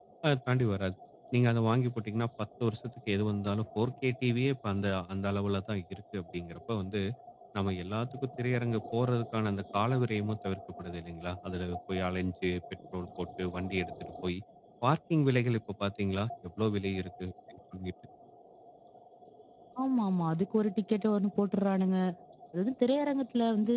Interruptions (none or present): none